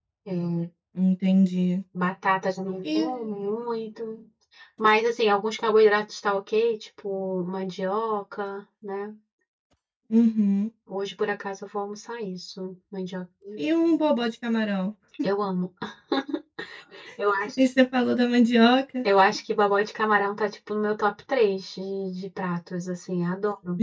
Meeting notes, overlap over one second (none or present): none